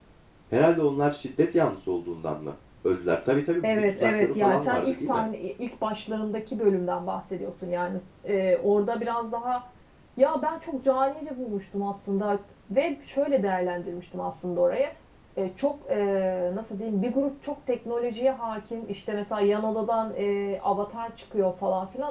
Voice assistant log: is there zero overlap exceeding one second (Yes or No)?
No